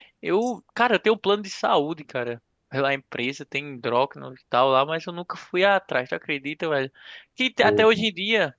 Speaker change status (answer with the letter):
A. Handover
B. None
B